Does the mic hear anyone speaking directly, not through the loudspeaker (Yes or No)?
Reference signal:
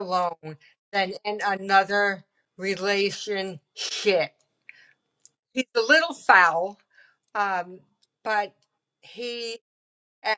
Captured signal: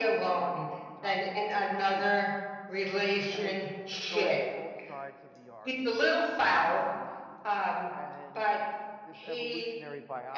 Yes